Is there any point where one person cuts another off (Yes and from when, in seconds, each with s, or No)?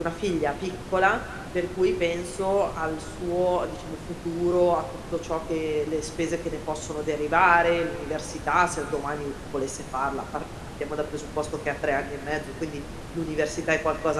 No